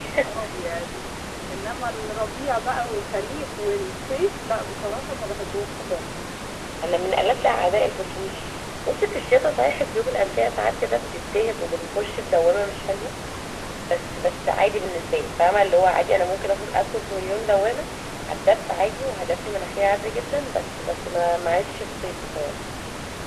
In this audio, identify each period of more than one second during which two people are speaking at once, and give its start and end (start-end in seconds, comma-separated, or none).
none